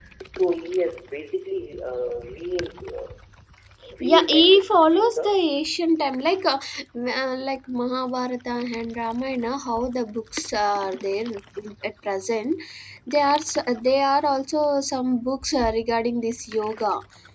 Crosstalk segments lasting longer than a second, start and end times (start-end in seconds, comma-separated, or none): 4.0-5.4